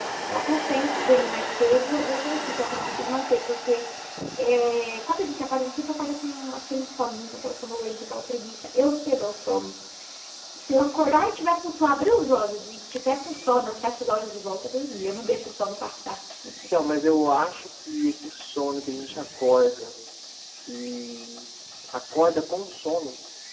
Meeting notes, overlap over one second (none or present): none